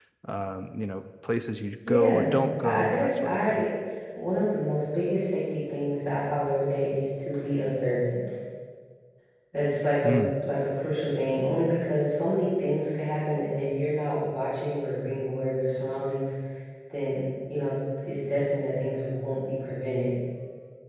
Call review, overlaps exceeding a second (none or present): present